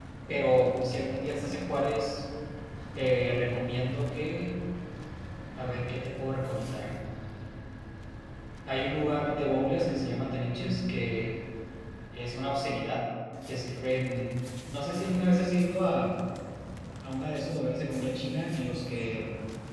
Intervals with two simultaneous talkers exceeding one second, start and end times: none

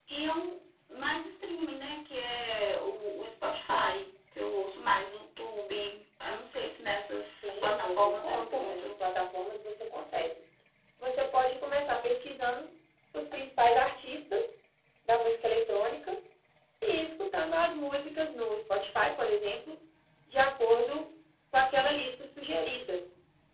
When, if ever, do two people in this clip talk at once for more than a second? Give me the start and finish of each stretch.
7.4-8.9

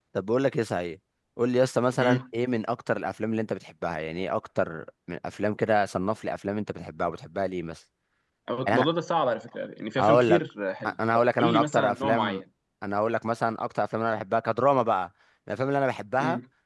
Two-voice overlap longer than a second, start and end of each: 11.1-12.4

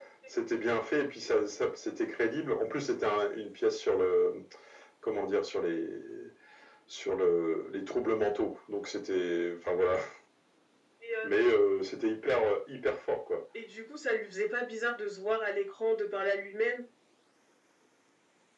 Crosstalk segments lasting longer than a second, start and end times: none

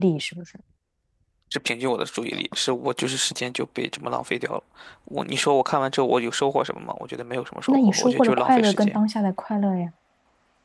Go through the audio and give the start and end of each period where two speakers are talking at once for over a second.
7.7-9.0

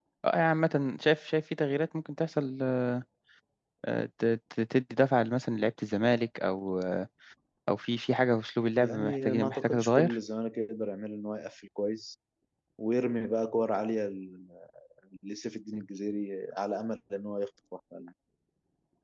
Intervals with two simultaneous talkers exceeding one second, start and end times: 8.8-10.2

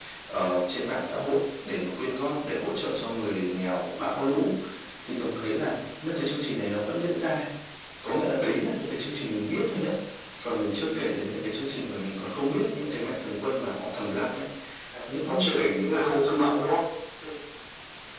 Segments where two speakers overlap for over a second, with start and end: 15.1-16.6

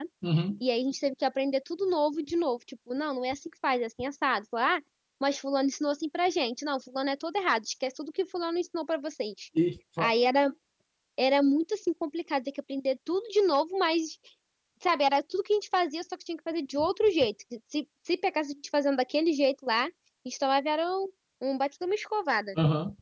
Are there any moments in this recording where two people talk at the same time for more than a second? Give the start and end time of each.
none

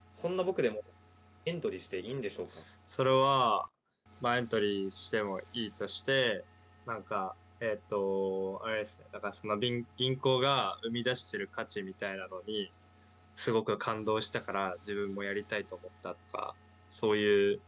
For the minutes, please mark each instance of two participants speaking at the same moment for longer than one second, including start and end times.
none

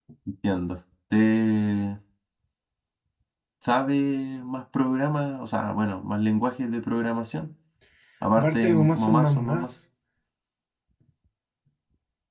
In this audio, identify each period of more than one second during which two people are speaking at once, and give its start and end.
8.3-9.7

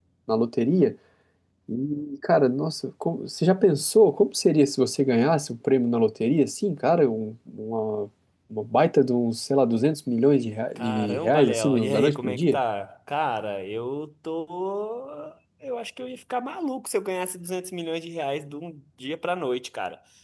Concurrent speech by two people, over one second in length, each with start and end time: 10.8-12.6

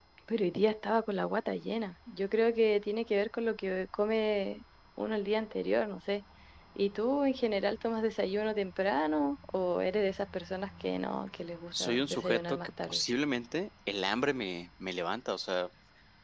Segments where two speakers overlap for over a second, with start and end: 11.8-13.0

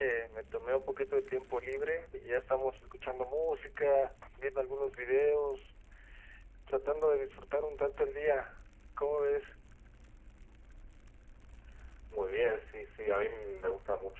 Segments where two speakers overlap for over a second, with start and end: none

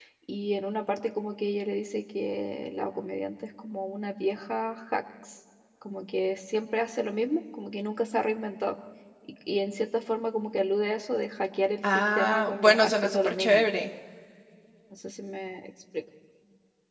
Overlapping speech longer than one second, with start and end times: 11.9-13.6

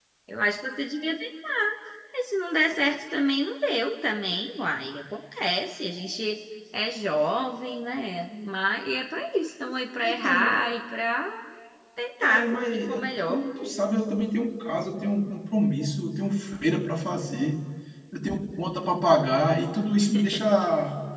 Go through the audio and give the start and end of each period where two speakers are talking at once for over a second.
12.2-13.4

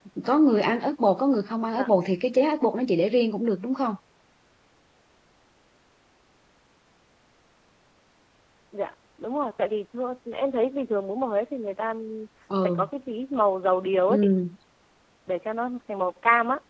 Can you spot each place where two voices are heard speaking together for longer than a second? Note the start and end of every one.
none

